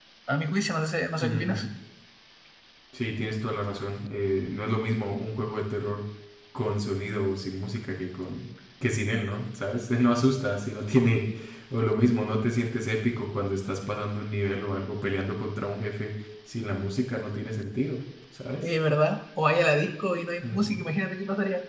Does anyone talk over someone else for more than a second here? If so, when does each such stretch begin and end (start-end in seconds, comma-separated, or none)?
none